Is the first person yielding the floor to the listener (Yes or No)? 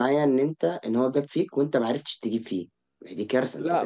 Yes